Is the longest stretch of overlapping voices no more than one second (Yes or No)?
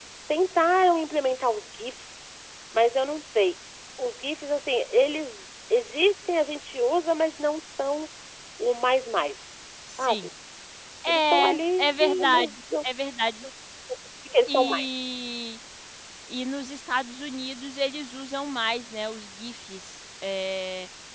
No